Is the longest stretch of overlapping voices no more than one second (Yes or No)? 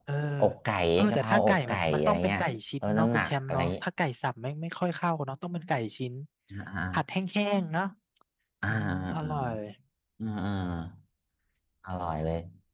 No